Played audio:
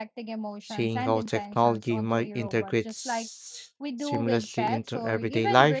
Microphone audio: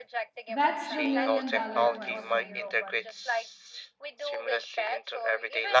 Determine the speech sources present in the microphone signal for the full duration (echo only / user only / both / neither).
both